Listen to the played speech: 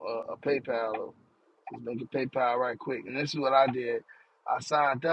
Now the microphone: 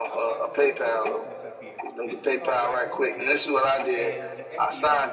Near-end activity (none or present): present